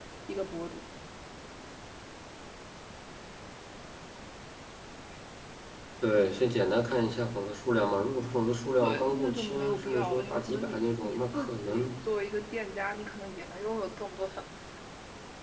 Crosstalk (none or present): present